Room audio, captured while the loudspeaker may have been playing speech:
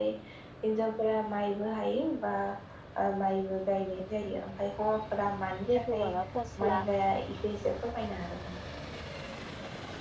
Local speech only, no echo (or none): जिथु माबा फस्ला